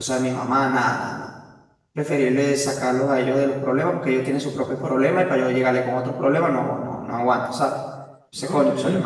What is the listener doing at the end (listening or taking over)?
taking over